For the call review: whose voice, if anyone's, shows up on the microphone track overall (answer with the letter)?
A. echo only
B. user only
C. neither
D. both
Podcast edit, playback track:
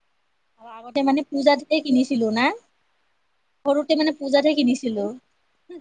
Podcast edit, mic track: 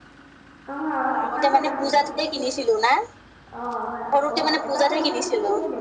D